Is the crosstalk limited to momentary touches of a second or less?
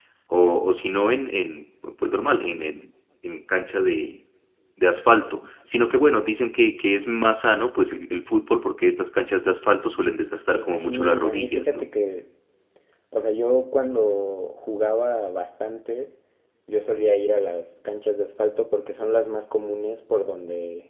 No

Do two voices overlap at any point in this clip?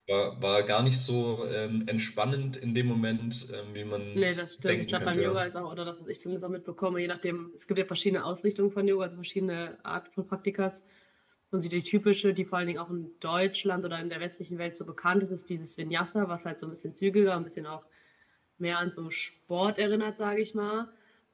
Yes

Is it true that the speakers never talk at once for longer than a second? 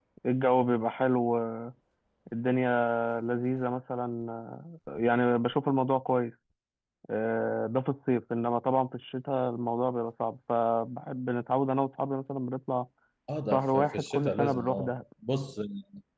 No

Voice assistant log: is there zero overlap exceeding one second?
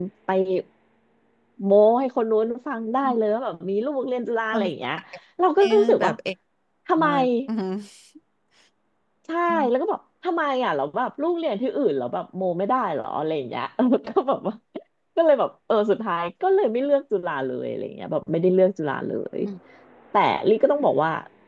Yes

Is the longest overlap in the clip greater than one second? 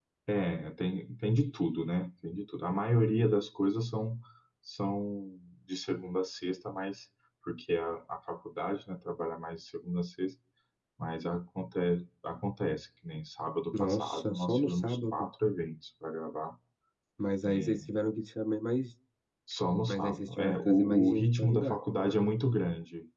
Yes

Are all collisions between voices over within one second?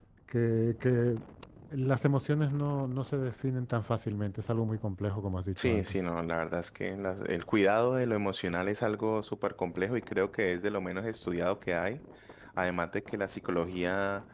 Yes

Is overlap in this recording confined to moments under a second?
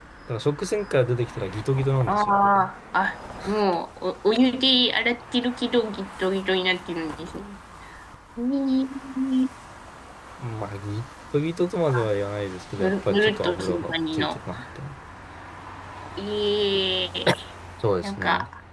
No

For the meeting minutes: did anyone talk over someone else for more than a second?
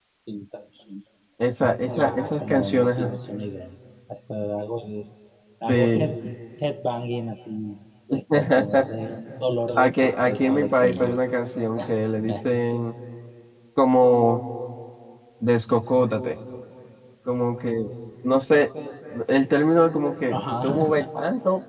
Yes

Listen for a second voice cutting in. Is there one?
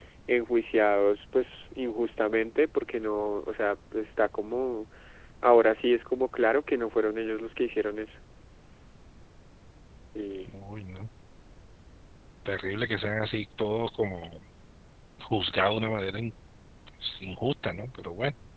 No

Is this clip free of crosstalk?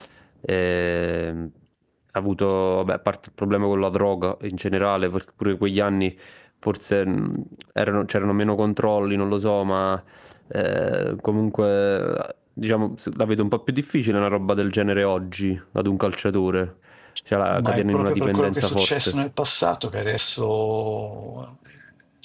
No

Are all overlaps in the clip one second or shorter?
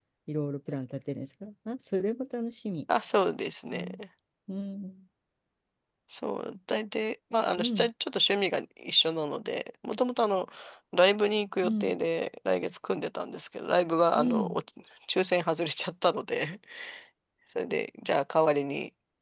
Yes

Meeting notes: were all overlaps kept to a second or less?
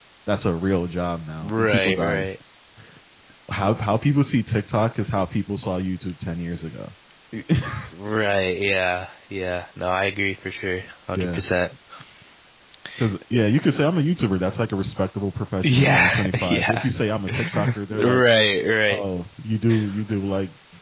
No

